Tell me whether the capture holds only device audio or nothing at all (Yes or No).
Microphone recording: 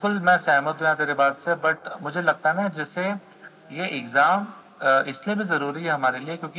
Yes